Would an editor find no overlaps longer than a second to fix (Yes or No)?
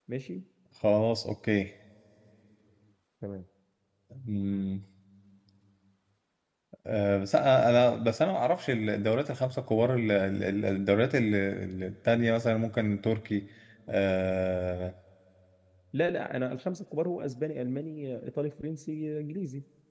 Yes